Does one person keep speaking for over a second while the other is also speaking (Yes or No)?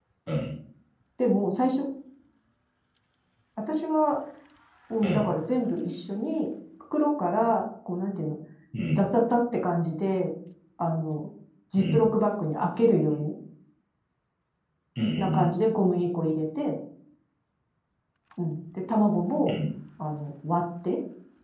No